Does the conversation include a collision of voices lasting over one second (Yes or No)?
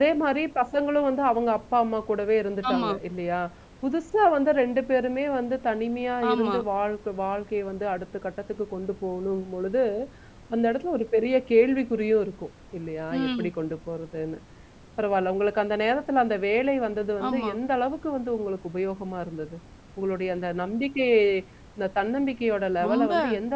No